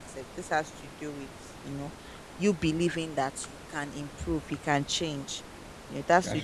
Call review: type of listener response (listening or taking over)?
listening